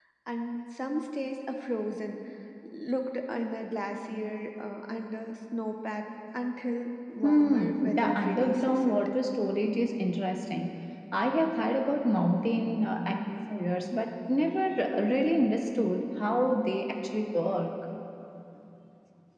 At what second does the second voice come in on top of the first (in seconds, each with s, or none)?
7.2 s